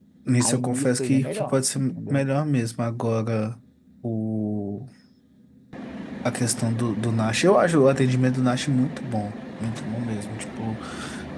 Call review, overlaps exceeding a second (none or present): present